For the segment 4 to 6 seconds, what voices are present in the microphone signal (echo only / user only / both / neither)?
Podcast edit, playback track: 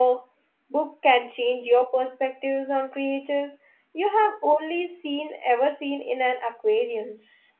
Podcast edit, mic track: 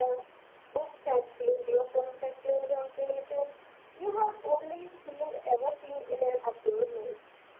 echo only